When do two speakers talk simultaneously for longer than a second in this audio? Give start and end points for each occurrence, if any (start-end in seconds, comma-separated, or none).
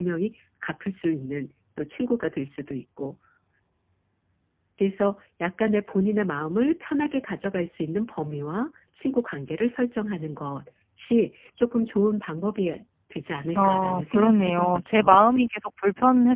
13.5-15.2